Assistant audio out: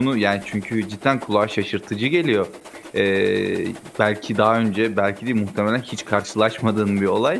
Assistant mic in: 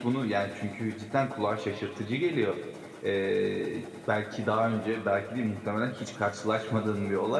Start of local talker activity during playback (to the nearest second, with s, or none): none